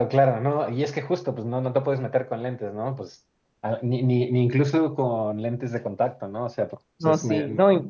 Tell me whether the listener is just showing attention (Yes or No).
No